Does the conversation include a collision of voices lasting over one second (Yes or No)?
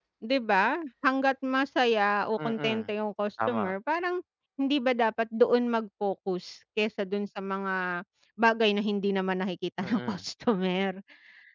No